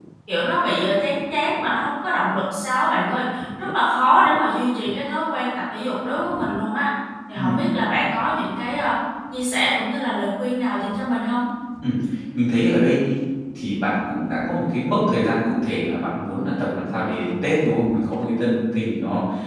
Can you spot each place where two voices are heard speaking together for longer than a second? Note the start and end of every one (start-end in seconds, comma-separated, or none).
none